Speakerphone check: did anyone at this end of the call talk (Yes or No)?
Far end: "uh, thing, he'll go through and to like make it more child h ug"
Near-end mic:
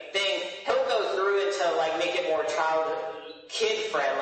No